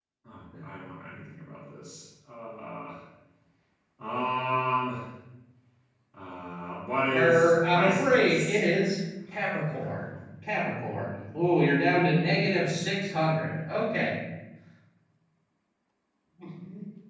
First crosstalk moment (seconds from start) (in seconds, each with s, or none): 7.1 s